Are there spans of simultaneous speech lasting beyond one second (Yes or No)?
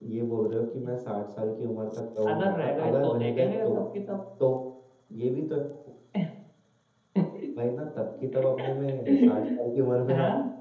Yes